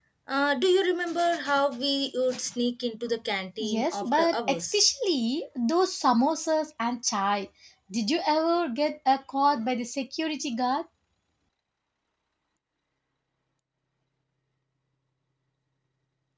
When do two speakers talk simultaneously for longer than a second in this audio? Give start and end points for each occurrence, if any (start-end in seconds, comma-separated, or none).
3.6-4.8